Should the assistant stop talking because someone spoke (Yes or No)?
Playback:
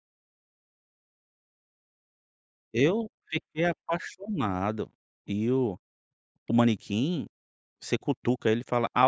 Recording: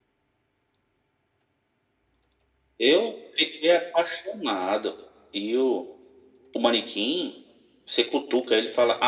No